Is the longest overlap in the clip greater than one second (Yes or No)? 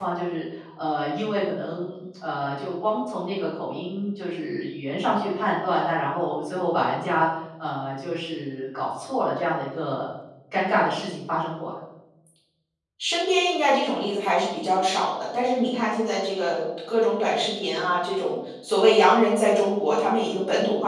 No